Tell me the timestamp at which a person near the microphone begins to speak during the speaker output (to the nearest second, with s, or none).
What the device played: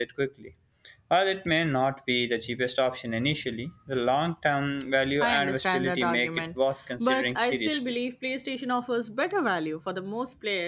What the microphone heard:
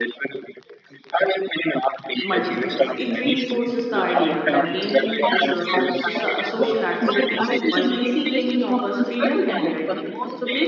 2 s